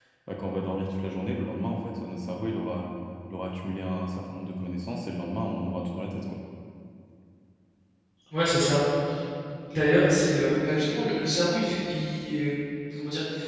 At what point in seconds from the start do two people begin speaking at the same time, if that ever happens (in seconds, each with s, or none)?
none